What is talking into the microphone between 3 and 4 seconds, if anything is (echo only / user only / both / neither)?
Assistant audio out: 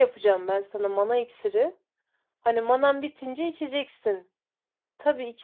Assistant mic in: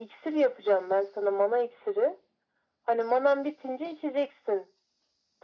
echo only